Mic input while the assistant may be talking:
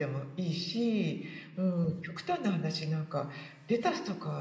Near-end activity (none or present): none